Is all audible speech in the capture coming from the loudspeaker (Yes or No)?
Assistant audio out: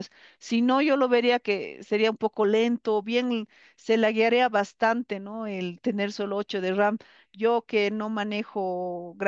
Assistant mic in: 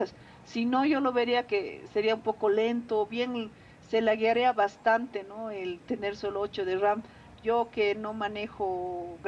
Yes